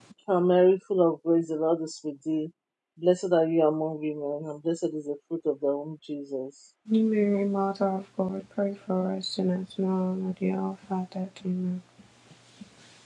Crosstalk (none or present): none